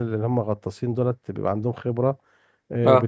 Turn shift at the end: No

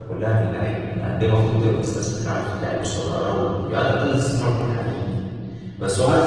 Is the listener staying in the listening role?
Yes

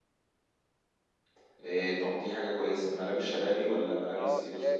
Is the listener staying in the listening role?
No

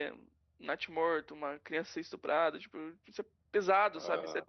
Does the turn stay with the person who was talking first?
Yes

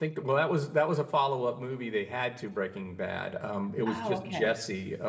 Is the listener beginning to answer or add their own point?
No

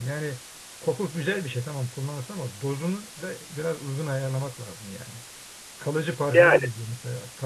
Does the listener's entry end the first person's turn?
No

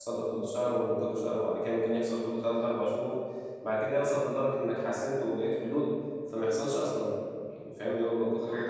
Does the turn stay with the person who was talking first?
No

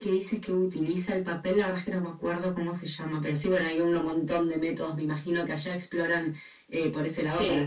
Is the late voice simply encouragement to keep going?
Yes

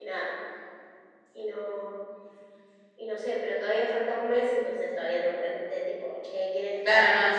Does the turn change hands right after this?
Yes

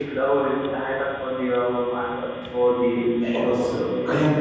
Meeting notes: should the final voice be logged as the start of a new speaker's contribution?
Yes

